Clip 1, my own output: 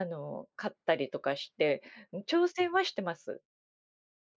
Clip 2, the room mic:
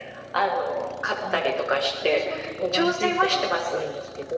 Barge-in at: 1.2 s

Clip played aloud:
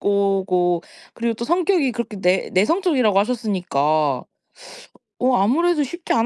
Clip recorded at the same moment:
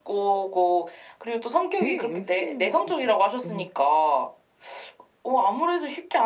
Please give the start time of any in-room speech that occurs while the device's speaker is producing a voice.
1.8 s

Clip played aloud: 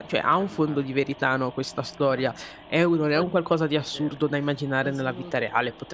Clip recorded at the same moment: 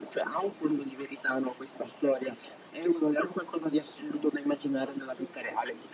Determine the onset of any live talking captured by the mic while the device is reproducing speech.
none

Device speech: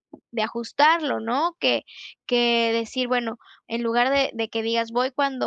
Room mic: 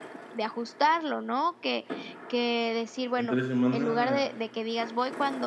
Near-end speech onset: 3.1 s

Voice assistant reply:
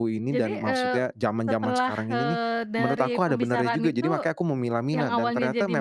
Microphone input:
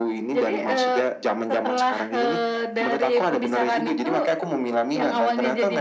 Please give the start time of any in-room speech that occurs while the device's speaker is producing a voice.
none

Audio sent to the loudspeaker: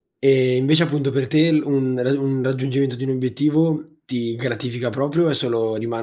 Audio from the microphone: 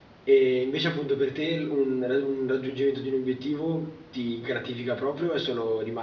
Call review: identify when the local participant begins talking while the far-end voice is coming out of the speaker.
none

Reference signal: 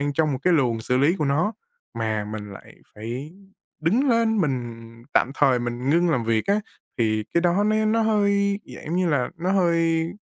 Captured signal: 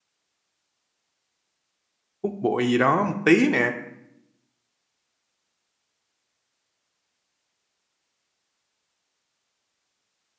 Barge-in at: 2.2 s

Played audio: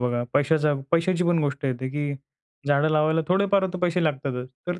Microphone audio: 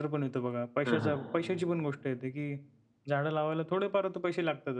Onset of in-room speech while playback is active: 0.8 s

